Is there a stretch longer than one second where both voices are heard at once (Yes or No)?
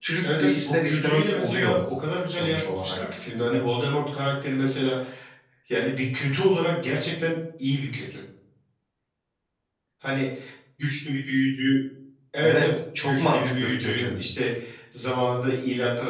Yes